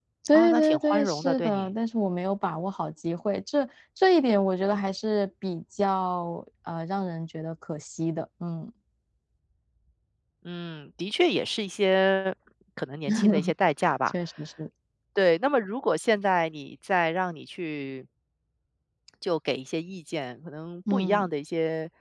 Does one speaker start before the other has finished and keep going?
Yes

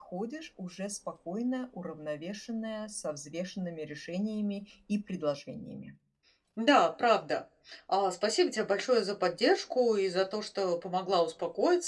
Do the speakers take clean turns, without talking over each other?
Yes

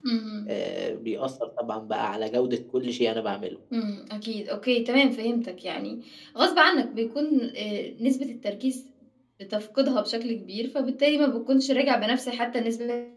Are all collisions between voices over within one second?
Yes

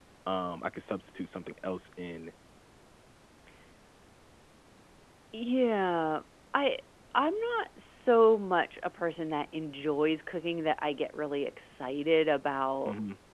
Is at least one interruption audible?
No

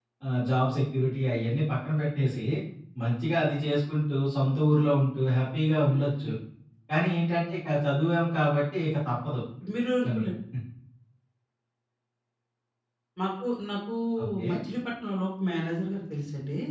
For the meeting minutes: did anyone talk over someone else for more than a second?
No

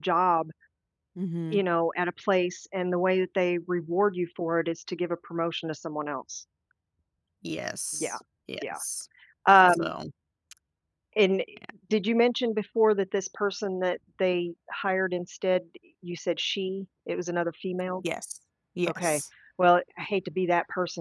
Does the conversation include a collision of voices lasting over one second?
No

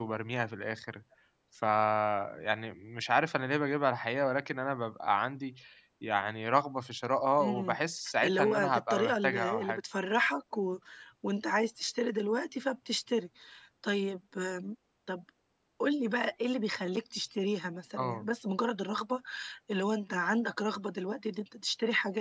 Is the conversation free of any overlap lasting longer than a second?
No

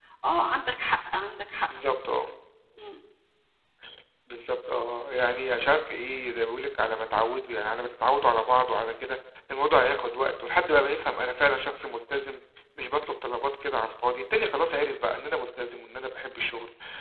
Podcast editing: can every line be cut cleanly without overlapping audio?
Yes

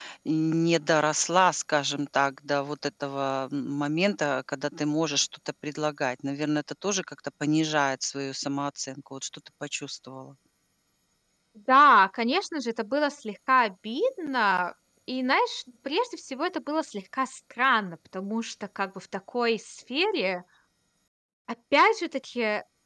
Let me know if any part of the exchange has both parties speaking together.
No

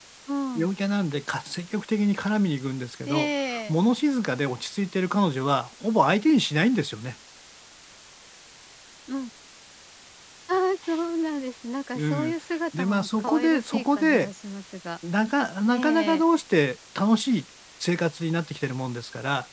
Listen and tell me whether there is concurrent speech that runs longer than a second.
Yes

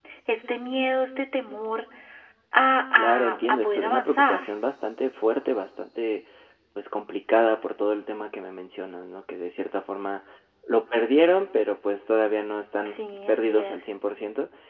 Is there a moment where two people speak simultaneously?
Yes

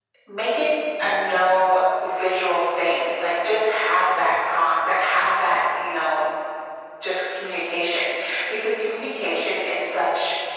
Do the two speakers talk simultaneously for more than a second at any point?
No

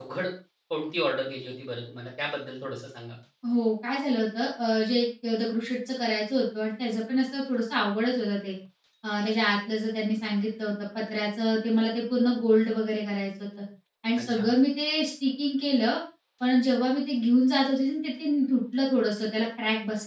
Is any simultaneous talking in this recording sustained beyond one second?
No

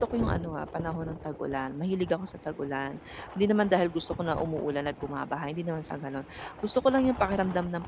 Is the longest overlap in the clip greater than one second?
No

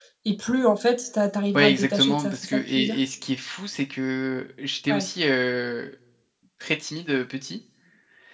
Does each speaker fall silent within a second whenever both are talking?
No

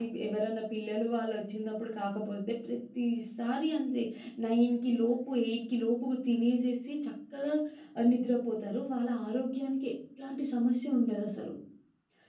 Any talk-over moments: No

